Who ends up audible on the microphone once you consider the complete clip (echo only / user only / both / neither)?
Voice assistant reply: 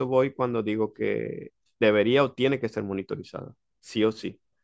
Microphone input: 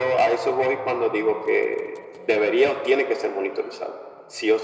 echo only